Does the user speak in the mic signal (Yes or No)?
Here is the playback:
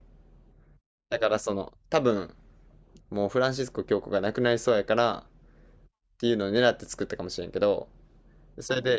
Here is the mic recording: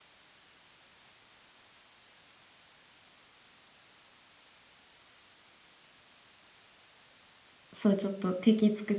Yes